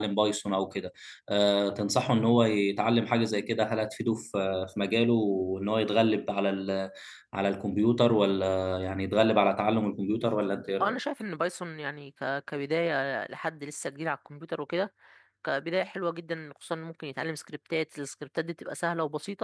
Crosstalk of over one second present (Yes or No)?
No